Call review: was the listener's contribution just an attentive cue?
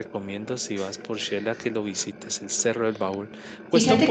No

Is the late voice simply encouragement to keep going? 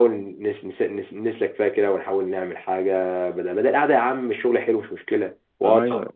No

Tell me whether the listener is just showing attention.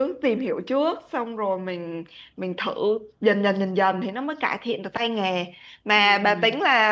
Yes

